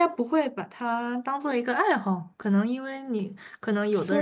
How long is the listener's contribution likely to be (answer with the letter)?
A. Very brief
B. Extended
B